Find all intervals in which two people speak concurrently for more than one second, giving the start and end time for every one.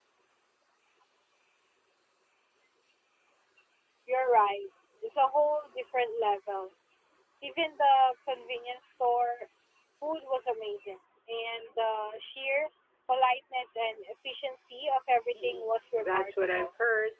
15.3-16.7

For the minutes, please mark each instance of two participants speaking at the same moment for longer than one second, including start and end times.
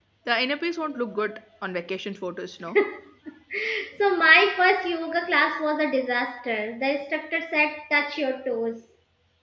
none

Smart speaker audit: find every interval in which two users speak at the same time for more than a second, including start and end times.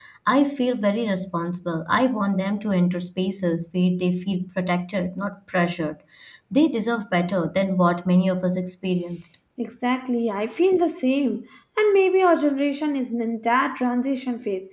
none

